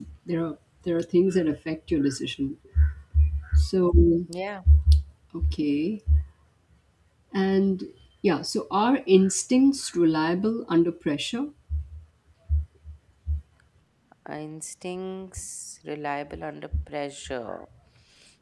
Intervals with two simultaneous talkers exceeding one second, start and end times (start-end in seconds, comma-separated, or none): none